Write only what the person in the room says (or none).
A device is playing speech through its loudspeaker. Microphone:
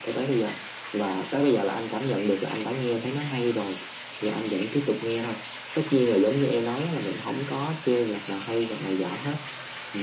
none